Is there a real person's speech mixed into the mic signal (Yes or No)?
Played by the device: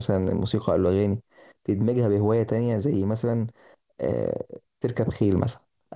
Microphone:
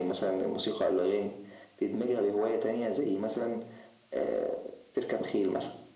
No